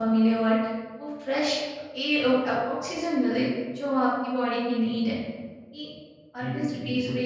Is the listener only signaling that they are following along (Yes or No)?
No